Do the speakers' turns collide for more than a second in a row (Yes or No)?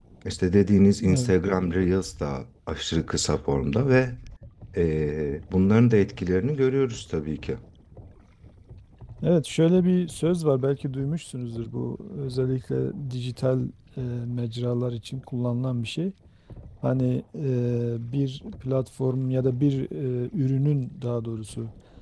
No